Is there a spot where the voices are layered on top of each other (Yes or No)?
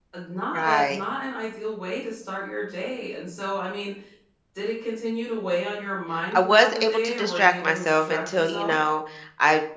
Yes